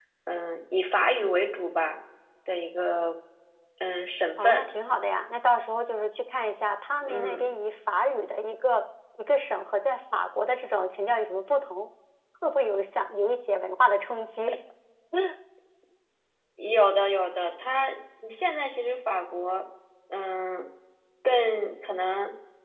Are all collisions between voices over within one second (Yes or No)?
Yes